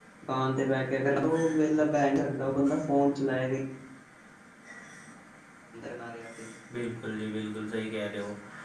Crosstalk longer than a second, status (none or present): none